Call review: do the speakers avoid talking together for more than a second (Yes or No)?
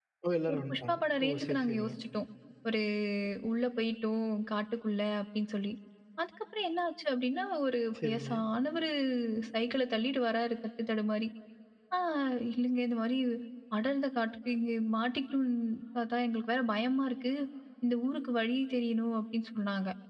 No